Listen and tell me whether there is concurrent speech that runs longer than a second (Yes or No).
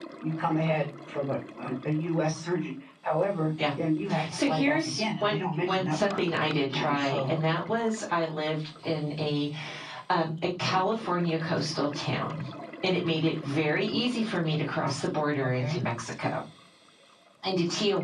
Yes